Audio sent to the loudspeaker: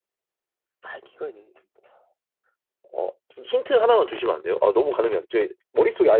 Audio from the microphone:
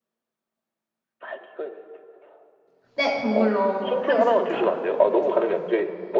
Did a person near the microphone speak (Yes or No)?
Yes